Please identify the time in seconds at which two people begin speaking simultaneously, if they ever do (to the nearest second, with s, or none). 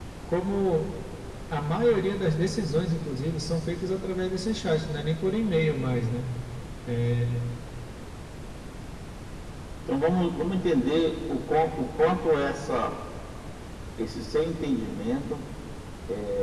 none